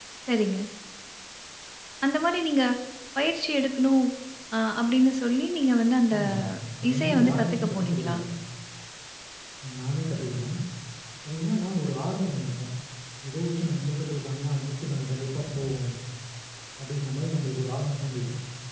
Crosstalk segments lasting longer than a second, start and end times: 6.9-8.2

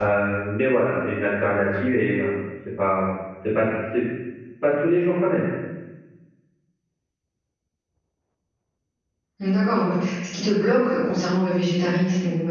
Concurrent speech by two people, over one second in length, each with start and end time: none

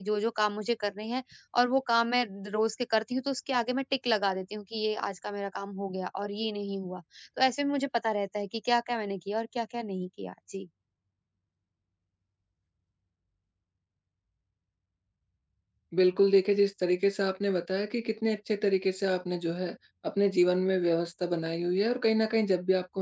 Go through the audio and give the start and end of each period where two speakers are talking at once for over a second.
none

